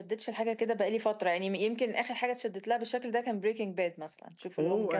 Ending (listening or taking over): taking over